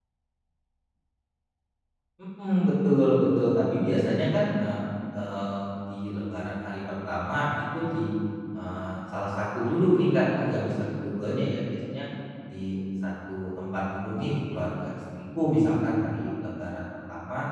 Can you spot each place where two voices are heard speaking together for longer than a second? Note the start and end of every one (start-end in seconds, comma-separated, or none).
none